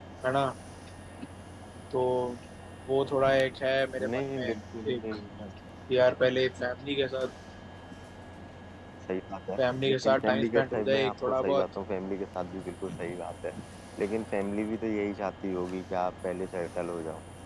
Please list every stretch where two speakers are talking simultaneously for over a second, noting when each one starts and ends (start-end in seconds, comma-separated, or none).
9.8-11.6